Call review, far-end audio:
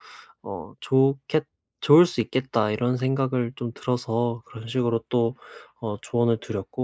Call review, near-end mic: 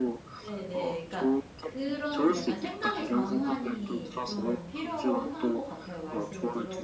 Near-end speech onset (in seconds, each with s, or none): 0.4 s